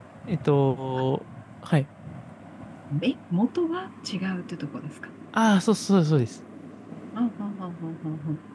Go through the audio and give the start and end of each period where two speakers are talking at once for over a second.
none

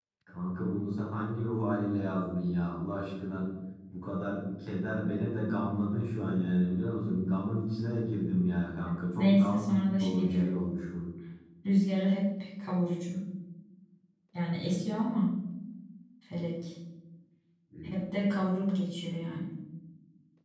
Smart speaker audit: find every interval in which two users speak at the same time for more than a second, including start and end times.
9.2-10.5

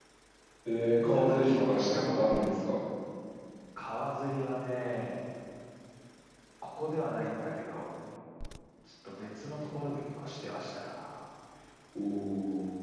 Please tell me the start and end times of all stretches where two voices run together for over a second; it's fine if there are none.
1.0-2.5

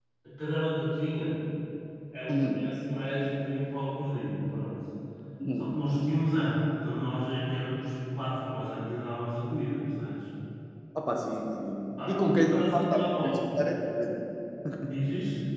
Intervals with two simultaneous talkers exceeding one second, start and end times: 12.1-13.3

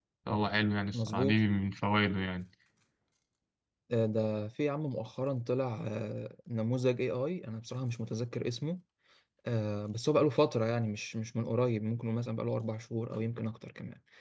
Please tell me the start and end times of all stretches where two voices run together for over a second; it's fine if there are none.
none

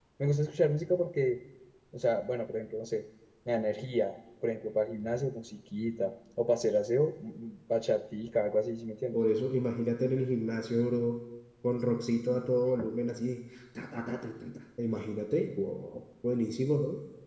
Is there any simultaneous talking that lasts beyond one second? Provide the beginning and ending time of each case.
none

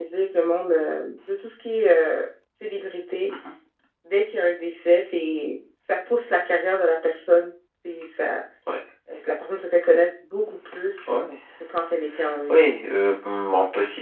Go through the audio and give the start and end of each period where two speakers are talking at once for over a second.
none

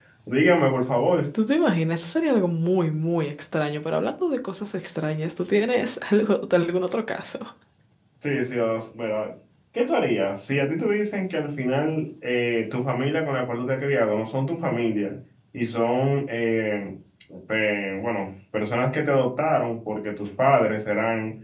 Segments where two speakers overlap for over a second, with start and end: none

